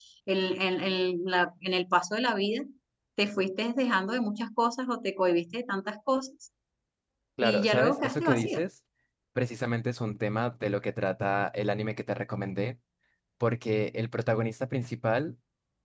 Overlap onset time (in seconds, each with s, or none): 7.4 s